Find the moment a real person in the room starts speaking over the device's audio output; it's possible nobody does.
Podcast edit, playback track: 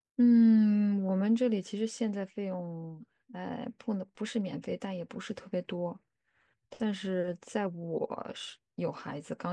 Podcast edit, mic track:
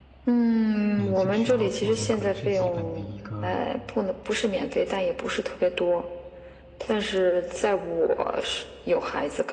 1 s

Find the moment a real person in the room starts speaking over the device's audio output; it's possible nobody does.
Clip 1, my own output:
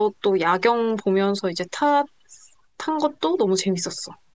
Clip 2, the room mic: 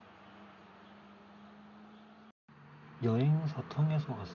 3 s

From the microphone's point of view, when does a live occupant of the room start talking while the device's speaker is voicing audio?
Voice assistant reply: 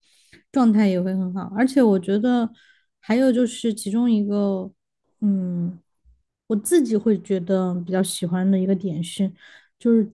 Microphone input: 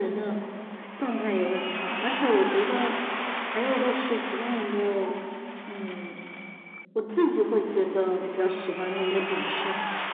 none

